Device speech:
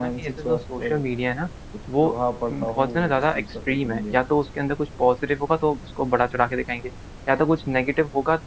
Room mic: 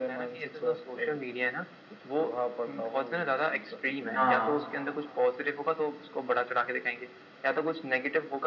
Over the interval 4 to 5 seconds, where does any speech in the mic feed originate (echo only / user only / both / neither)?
both